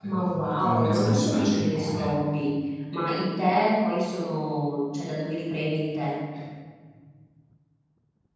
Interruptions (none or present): present